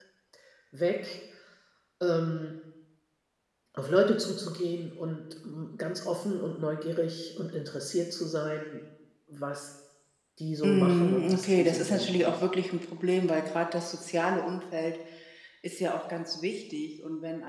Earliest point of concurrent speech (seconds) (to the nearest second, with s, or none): 11 s